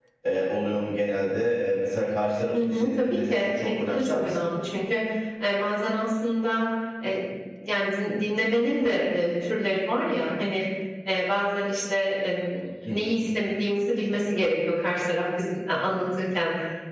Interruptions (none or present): present